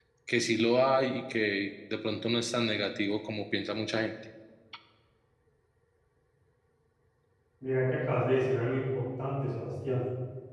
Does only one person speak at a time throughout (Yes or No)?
Yes